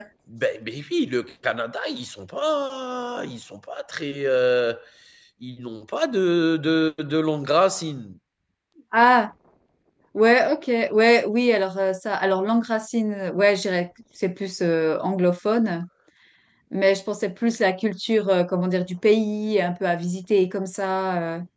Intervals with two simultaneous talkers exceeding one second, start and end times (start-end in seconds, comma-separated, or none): none